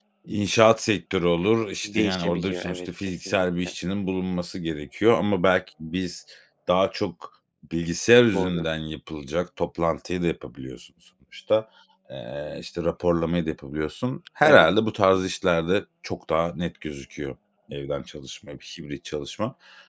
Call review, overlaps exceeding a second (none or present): present